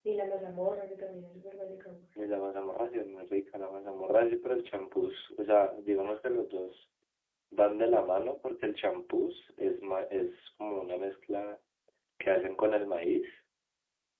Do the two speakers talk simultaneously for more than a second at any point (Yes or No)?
No